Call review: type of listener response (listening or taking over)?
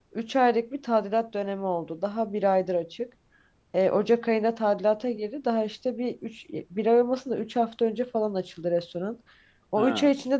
listening